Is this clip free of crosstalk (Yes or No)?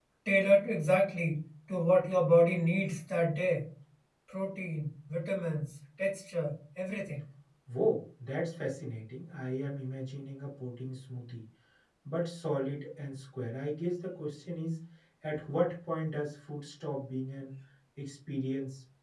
Yes